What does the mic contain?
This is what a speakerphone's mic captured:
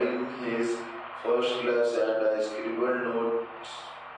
echo only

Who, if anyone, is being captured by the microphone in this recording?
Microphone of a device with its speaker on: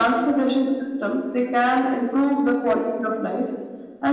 echo only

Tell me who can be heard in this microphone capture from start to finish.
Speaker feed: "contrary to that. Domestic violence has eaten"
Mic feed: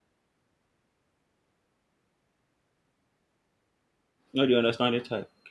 user only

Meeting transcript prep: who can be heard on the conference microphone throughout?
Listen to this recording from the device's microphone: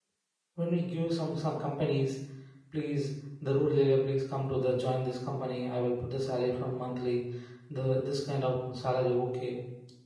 user only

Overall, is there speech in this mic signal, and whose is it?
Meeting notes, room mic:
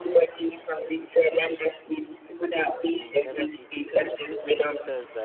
both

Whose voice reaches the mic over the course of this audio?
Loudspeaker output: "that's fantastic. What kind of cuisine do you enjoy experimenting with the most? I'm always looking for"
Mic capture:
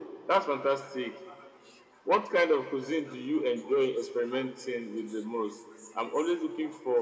echo only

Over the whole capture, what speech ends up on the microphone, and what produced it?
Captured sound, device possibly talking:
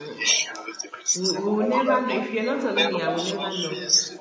both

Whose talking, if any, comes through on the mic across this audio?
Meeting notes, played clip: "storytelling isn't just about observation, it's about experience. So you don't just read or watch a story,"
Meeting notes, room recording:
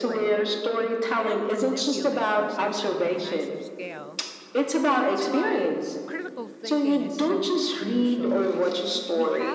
both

